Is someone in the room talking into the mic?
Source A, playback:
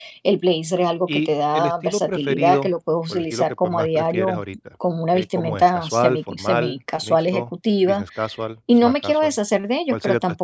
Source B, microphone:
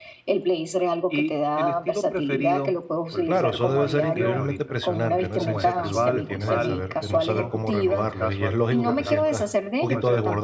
Yes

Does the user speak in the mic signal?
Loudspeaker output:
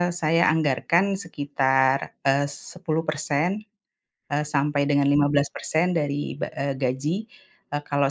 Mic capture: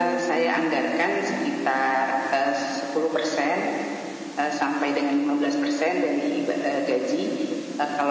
No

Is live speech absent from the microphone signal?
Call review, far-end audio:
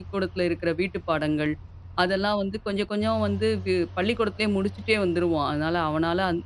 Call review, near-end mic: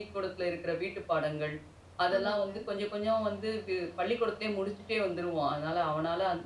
No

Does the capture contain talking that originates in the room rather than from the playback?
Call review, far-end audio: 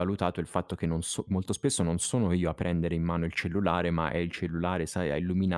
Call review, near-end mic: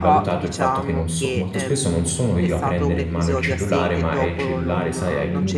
Yes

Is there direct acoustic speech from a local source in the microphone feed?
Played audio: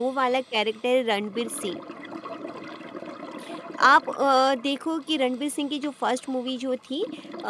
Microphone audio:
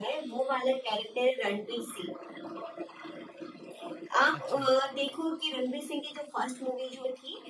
Yes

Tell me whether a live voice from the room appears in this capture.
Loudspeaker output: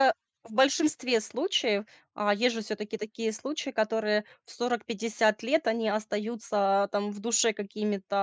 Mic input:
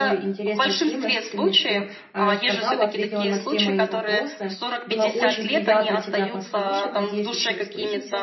Yes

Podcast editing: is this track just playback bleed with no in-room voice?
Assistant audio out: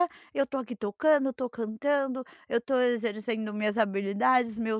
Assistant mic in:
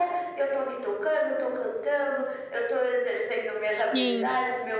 No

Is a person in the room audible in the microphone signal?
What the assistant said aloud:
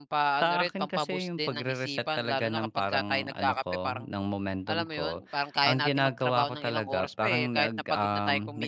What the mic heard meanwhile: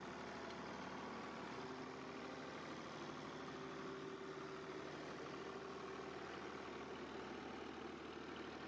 No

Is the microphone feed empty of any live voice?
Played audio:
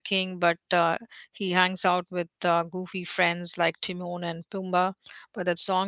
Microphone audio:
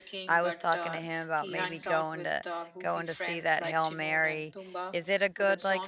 No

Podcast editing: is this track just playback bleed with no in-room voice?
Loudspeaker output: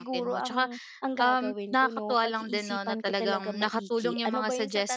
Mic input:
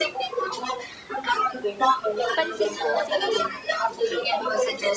No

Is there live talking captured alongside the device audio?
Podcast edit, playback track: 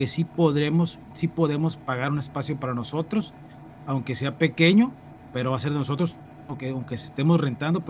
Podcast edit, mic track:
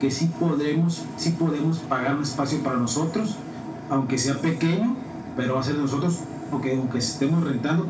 No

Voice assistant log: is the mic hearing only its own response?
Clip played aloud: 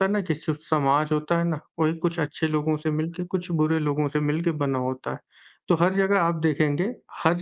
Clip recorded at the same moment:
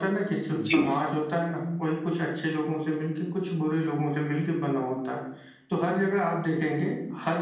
No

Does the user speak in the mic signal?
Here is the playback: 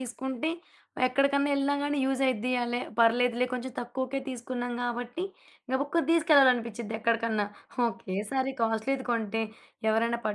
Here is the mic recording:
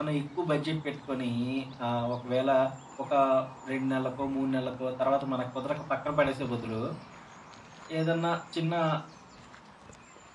Yes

